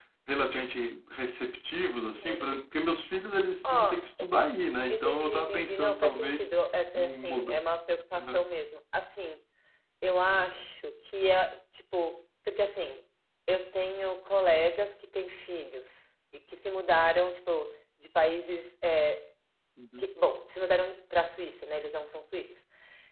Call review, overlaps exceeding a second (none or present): present